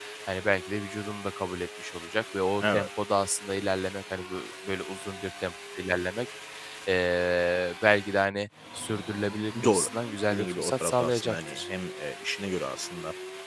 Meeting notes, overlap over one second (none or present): present